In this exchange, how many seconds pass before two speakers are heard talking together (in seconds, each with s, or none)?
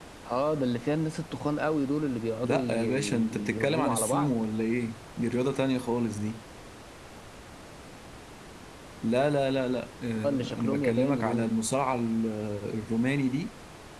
2.4 s